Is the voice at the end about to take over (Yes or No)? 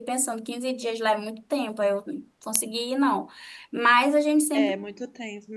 Yes